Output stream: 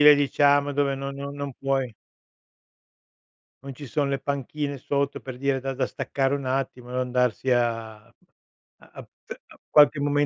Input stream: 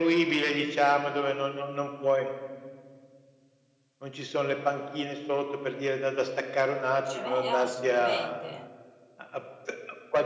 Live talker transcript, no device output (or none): Cioè a me eh, assolutamente,